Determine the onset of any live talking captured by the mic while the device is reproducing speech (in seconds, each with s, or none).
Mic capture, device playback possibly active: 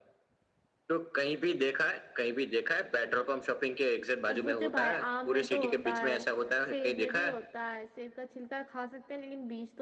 4.3 s